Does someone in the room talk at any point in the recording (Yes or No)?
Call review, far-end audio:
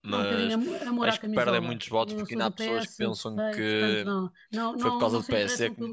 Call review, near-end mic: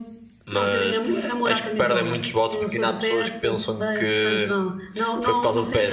No